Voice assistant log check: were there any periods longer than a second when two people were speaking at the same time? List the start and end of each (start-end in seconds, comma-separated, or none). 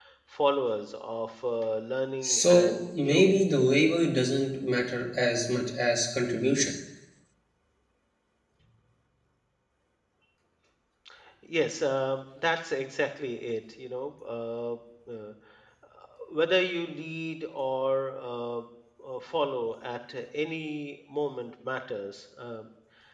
2.2-3.6